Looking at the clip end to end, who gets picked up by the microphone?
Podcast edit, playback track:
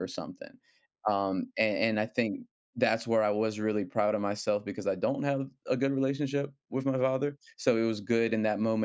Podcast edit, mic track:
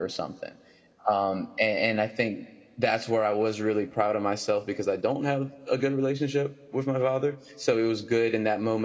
echo only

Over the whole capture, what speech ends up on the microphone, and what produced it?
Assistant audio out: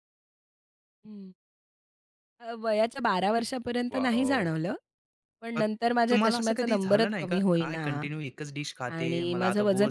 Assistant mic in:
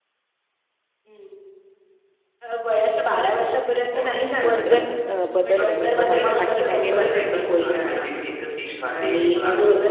both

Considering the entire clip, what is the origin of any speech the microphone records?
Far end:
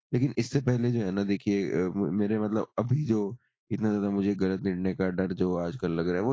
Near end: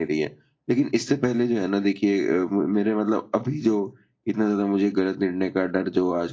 echo only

